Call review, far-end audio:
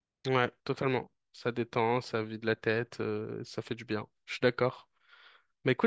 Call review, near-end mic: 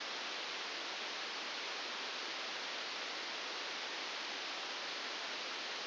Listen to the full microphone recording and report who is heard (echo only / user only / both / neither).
neither